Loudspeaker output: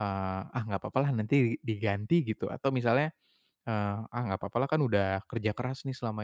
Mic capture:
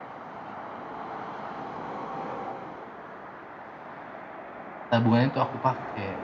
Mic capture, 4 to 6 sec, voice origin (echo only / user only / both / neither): user only